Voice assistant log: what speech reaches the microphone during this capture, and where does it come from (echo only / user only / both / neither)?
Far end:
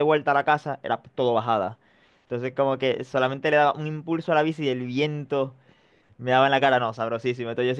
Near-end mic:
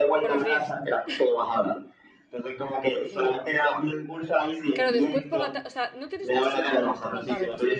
both